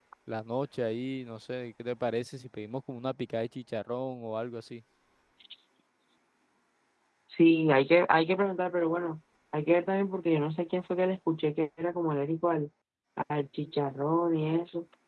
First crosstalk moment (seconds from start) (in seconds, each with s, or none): none